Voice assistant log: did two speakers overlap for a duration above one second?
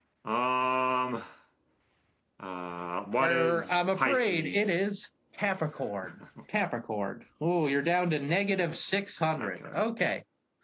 Yes, from 3.2 s

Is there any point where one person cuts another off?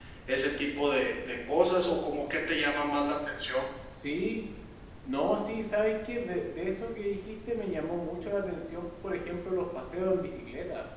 No

